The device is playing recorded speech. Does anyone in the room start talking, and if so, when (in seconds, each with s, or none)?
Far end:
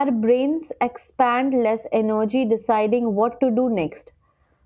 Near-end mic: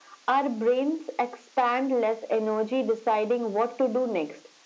none